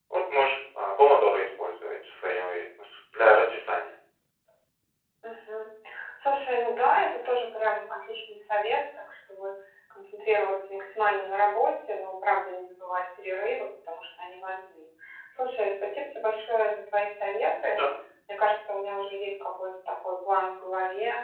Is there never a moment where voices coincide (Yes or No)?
Yes